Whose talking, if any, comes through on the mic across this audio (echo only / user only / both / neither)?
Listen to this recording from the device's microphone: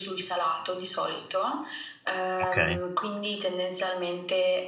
both